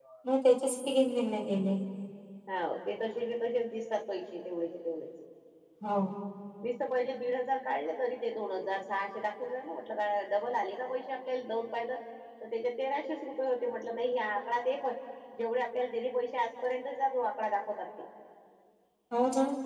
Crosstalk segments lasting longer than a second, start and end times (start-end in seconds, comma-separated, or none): none